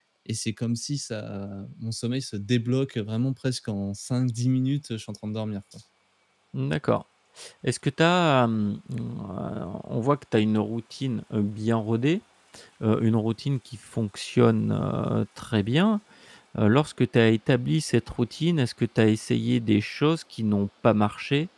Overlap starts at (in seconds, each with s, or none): none